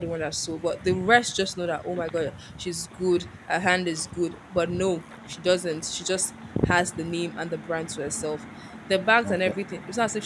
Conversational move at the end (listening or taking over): listening